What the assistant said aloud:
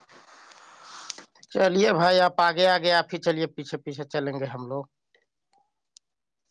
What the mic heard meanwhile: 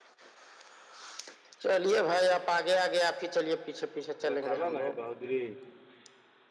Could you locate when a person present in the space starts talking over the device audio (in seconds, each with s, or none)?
4.2 s